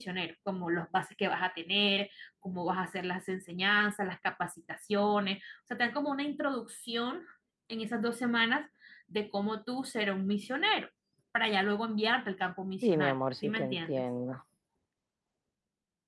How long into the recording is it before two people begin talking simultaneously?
13 s

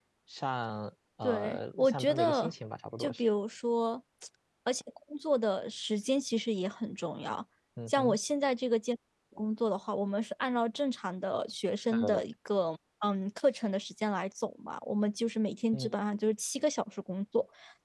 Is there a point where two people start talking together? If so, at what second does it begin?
1 s

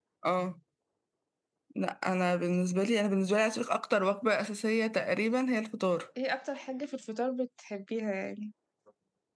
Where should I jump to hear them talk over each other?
none

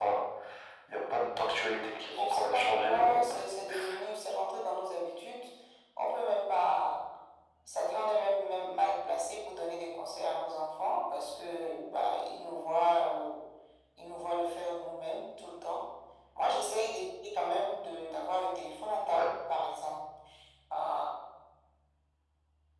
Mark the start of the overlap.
2 s

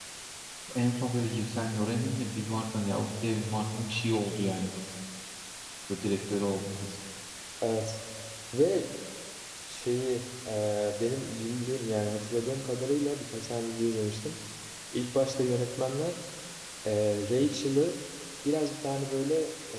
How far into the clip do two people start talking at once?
none

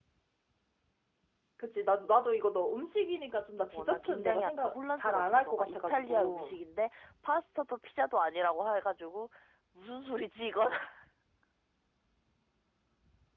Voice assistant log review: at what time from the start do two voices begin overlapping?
4 s

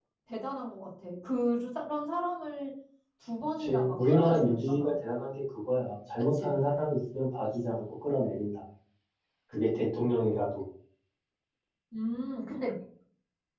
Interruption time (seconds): 4 s

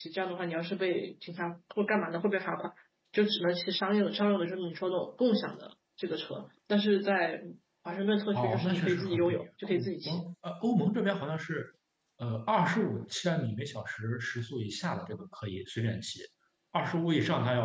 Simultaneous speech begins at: 8 s

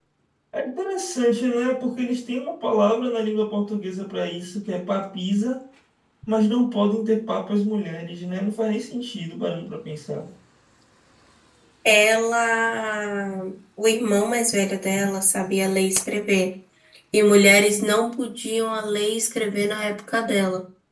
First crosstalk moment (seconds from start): none

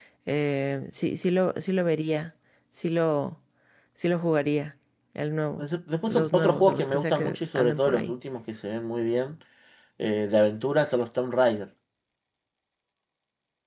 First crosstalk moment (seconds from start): 6 s

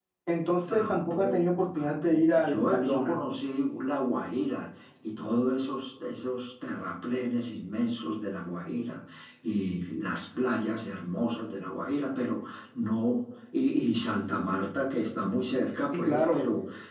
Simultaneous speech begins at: 1 s

